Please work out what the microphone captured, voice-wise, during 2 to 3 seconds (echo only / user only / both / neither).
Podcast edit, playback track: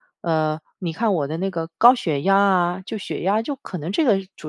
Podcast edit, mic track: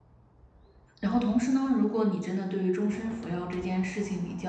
user only